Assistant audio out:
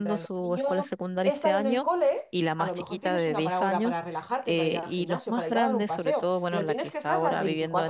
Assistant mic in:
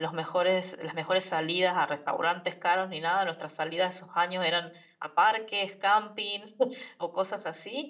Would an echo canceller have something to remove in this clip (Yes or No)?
No